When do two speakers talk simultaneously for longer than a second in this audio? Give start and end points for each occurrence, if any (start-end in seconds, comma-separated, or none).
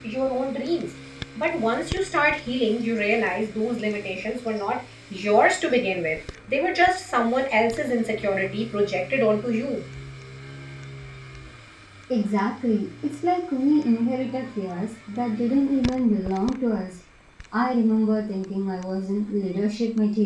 none